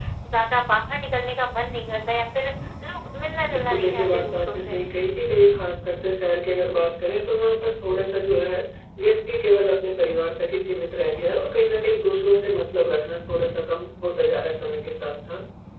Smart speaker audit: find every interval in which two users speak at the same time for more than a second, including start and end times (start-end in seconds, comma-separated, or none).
3.5-4.8